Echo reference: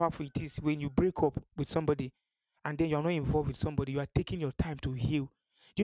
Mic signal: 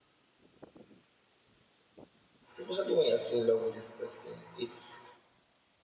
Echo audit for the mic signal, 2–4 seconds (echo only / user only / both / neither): user only